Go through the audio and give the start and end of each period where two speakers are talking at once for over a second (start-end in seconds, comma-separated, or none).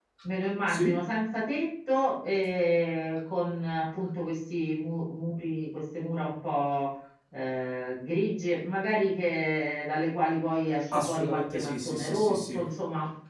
10.9-12.6